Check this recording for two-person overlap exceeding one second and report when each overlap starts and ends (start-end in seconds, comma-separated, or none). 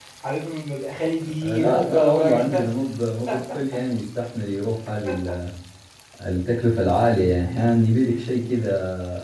1.4-2.7